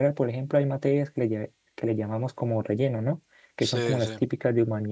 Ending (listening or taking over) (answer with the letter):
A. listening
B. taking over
A